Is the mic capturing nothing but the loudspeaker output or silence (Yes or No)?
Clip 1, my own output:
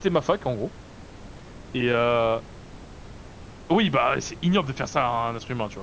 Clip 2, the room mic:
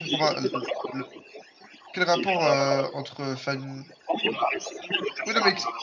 No